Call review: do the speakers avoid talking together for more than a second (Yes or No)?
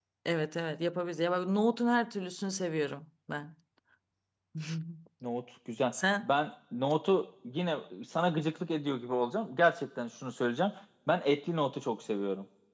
Yes